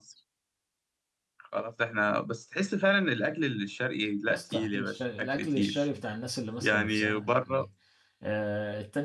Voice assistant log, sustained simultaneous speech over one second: present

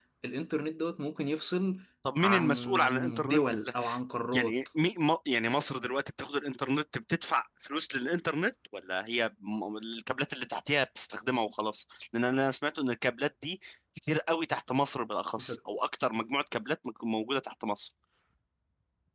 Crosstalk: present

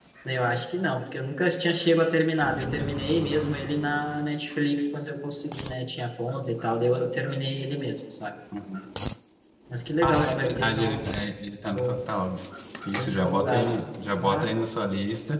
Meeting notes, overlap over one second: present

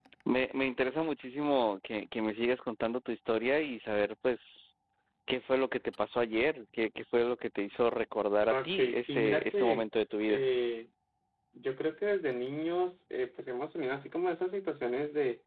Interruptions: present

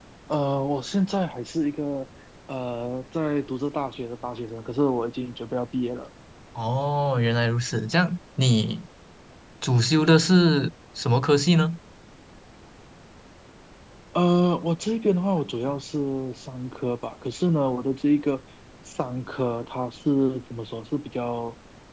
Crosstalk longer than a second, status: none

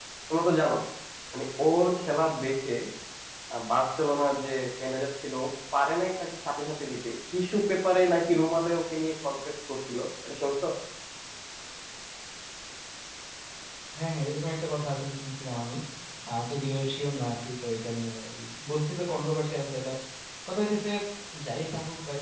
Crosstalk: none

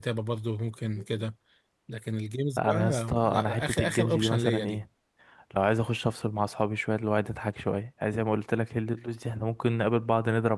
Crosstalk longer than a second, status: present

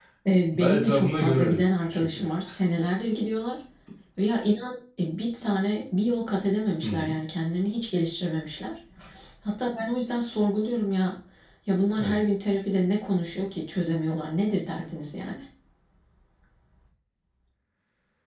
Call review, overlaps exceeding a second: present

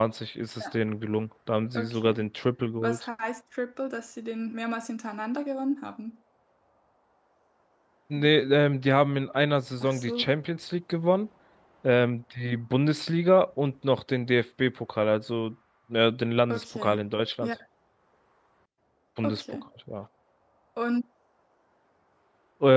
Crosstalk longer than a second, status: none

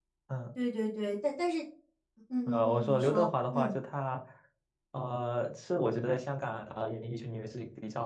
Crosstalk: present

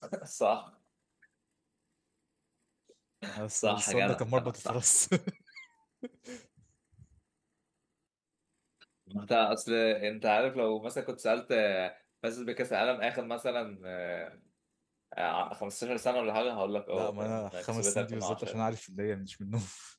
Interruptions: present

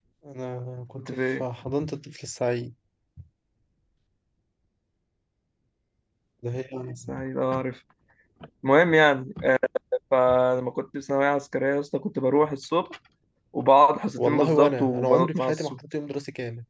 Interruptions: present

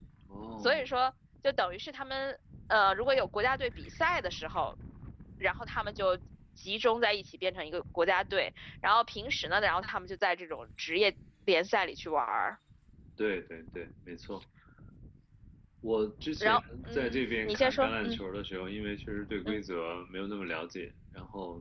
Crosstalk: present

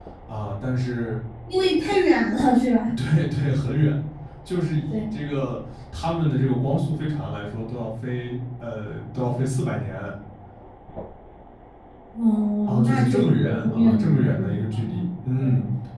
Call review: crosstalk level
present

